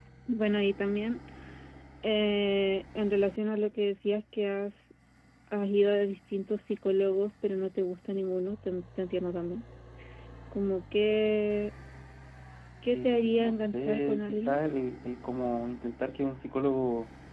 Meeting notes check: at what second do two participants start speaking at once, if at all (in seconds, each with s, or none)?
12.9 s